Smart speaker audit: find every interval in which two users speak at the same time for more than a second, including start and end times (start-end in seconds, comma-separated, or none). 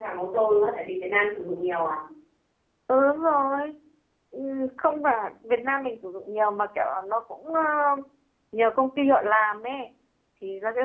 none